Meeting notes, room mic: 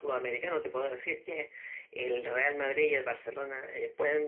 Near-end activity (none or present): none